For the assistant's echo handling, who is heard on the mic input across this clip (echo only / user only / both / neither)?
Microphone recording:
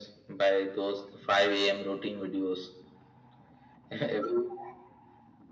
echo only